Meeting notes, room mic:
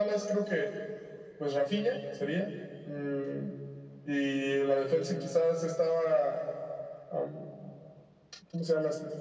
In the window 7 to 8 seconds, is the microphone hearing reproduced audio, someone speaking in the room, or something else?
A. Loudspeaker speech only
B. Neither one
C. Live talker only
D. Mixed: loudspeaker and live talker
A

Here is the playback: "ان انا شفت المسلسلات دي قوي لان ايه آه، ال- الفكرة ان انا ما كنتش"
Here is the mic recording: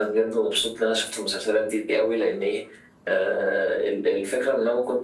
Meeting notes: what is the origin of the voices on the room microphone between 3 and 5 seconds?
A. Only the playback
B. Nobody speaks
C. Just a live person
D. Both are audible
A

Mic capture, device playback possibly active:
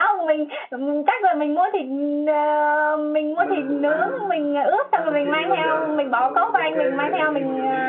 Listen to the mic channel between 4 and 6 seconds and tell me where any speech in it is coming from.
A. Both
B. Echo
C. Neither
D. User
A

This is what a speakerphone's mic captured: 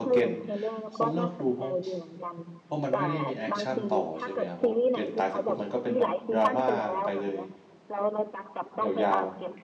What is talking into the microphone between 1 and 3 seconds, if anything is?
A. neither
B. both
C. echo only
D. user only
B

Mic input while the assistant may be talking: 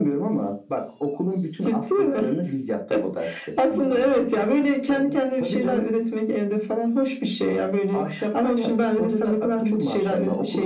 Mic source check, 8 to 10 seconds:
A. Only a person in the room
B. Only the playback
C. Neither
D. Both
B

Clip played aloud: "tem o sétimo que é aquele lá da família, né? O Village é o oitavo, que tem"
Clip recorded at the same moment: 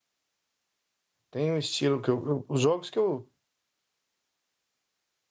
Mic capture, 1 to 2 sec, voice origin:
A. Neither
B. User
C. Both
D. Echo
B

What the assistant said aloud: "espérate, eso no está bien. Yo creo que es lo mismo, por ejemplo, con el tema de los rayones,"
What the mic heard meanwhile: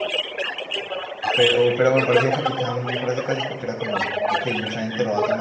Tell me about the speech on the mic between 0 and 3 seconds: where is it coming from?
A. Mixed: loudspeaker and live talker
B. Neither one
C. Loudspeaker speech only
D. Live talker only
A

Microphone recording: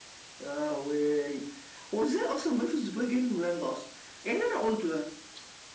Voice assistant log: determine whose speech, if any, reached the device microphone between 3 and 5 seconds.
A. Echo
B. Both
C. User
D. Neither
A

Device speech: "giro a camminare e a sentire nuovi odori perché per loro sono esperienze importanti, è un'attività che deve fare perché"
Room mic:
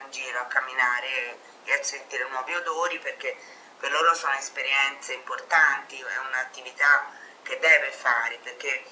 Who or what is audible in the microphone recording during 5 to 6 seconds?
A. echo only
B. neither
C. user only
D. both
A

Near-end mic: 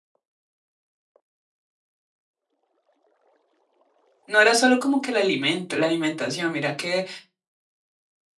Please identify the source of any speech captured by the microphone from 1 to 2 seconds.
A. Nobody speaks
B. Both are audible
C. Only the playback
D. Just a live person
A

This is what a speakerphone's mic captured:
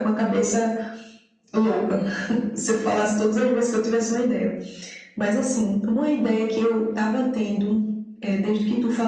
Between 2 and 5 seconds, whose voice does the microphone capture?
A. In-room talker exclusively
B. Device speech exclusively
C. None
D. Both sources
B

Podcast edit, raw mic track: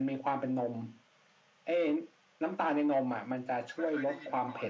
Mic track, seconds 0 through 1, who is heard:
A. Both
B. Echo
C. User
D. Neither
B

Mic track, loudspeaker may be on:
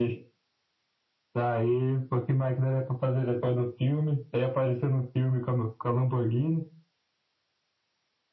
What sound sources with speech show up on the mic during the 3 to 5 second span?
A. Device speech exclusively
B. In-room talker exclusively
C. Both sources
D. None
A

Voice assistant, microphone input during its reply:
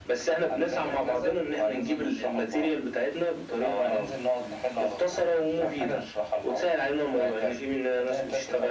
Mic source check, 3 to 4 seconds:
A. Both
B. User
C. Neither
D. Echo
D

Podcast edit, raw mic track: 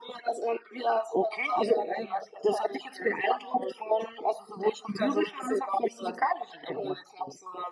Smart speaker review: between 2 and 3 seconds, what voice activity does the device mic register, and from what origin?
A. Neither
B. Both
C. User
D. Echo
D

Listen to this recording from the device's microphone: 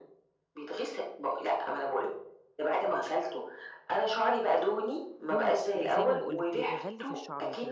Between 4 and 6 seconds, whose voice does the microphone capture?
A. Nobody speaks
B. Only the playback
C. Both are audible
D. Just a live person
C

